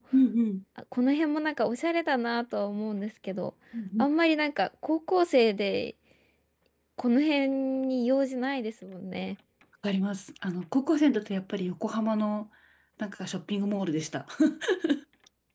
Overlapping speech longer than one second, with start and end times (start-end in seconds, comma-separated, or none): none